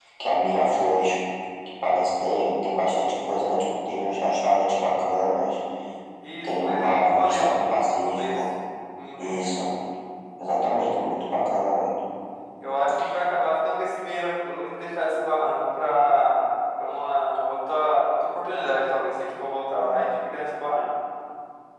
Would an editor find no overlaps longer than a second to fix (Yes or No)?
No